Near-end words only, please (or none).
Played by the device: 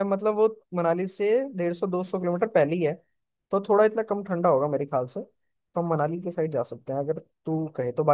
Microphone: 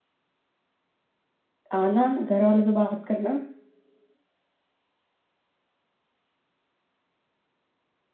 आना घर वालों से बात करना